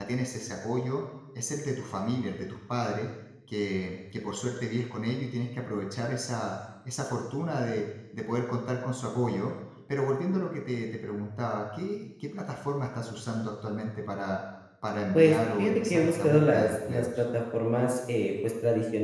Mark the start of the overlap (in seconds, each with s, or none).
15.1 s